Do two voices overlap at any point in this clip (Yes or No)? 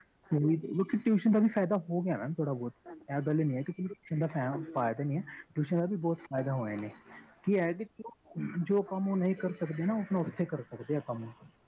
Yes